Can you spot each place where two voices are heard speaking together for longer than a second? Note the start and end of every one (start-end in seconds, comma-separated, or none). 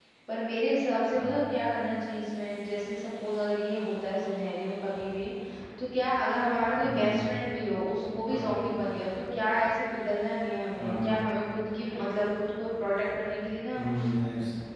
none